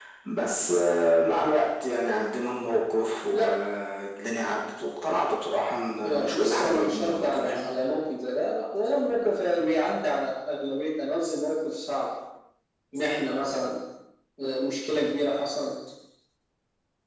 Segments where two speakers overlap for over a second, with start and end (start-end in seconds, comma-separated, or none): 6.0-7.8